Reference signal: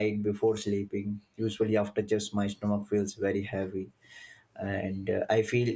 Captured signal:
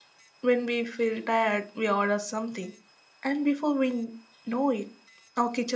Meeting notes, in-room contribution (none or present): present